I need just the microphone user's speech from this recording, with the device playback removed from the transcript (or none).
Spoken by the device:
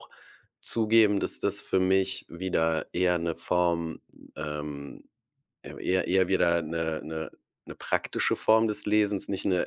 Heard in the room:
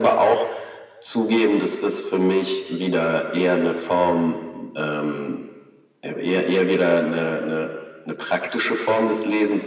none